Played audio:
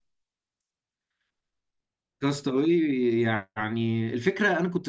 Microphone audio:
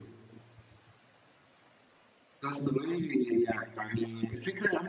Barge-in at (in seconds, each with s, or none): none